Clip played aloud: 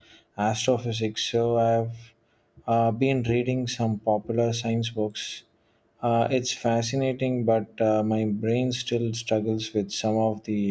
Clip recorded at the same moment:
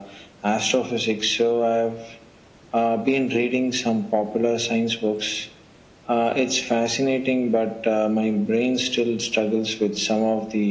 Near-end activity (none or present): none